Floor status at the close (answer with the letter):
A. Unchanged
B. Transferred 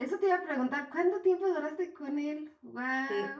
B